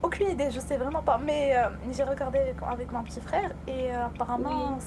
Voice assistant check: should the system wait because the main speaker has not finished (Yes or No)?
Yes